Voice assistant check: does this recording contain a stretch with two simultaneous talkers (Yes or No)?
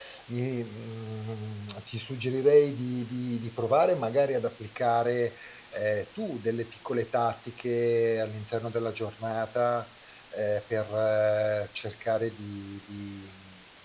No